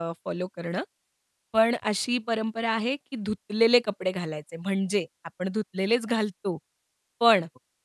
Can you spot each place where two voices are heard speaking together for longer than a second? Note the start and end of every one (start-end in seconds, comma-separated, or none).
none